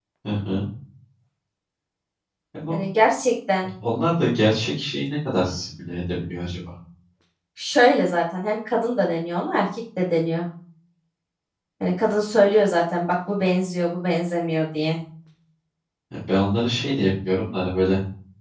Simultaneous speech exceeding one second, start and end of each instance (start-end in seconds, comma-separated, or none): none